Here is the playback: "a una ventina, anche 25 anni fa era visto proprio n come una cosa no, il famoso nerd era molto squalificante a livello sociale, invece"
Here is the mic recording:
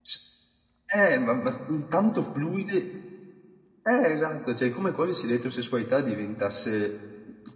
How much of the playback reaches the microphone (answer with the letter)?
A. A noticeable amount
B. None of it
B